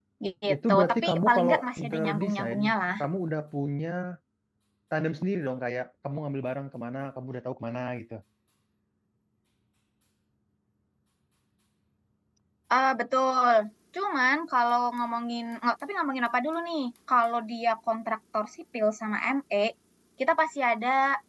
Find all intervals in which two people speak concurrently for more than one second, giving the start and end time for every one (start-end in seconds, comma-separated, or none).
0.5-2.6